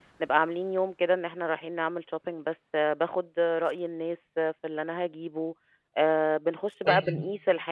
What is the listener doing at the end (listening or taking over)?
listening